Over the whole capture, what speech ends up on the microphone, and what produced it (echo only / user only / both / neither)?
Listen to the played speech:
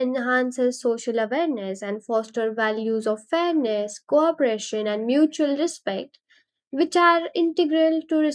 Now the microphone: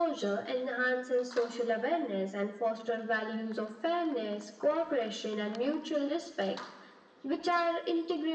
echo only